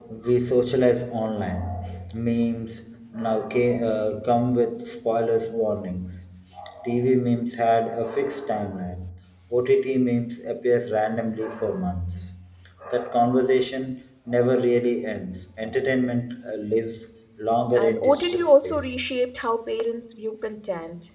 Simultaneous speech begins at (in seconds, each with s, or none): 17.8 s